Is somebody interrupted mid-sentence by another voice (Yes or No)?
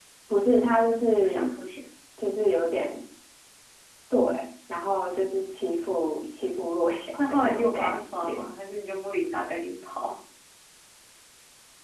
Yes